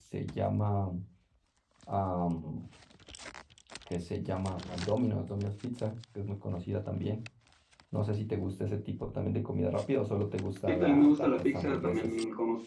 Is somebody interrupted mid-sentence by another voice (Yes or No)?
Yes